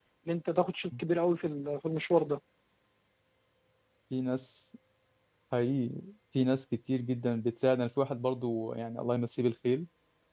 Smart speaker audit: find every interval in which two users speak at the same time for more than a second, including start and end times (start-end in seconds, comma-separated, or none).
none